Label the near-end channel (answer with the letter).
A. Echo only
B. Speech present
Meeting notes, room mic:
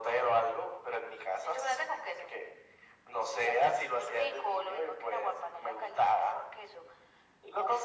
A